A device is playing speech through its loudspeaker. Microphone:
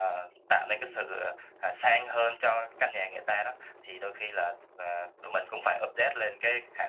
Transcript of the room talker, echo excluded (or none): ừm,